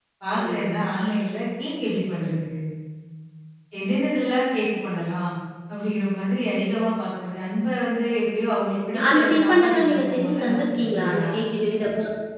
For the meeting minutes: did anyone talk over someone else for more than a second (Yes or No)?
Yes